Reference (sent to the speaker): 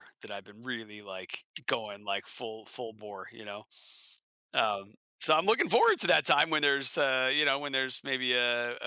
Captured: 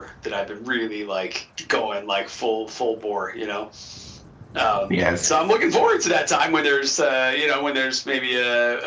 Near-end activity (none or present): present